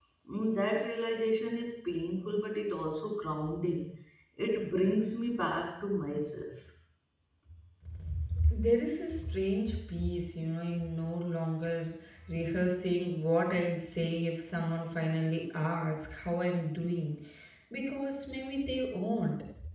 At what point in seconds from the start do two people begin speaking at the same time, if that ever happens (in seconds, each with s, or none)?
none